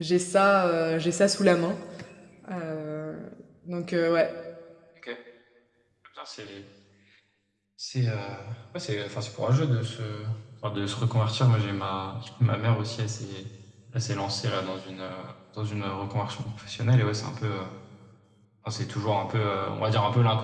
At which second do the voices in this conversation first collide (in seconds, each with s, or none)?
none